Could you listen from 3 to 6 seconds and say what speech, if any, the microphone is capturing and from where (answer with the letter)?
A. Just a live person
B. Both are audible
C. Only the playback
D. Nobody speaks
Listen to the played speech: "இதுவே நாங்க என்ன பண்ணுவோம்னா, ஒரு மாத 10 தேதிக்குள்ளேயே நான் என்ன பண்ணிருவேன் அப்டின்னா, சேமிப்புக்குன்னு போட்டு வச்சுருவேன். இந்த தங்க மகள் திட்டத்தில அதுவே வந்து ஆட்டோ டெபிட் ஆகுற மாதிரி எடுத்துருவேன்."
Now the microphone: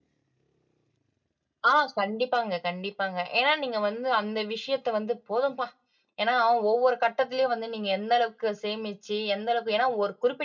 A